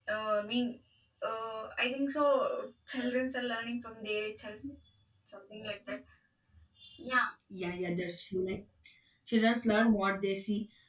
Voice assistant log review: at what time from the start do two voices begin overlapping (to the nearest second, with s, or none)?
none